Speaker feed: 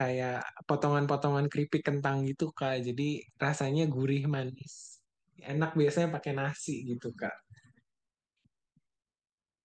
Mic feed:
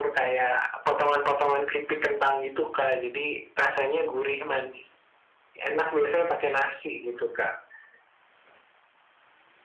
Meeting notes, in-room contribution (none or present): none